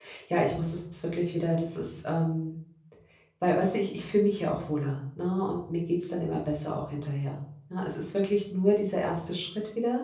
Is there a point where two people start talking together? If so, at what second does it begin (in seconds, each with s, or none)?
none